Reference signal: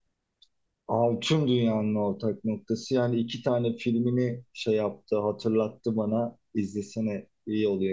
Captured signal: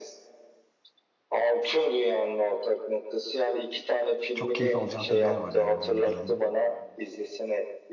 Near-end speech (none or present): present